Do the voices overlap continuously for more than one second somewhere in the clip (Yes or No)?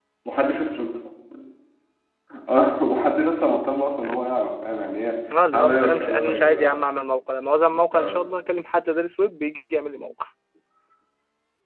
Yes